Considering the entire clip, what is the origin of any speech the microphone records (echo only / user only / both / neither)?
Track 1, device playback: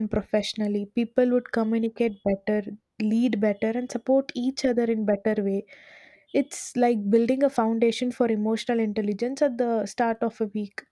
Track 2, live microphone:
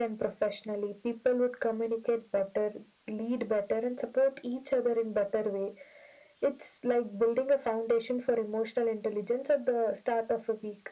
echo only